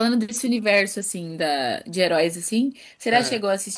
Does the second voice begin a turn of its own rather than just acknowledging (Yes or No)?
No